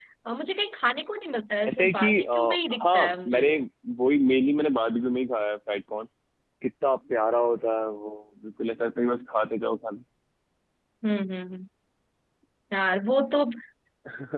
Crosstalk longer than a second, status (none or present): present